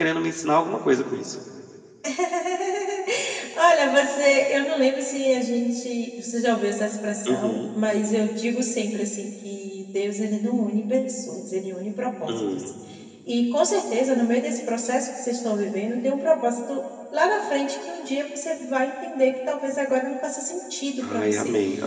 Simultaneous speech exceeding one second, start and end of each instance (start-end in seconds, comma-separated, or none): none